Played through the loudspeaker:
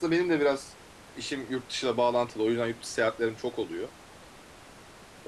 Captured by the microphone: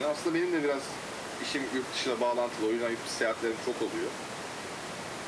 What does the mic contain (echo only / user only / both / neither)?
echo only